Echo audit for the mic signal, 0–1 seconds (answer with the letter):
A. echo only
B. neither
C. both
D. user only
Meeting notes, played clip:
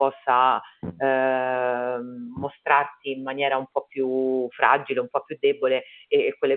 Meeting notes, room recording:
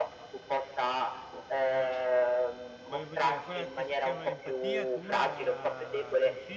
A